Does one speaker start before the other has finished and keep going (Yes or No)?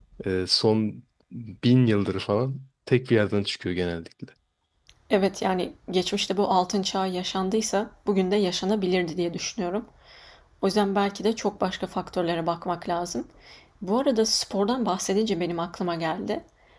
No